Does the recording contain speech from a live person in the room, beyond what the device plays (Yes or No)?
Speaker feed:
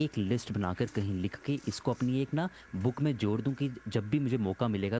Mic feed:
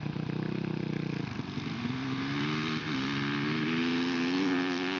No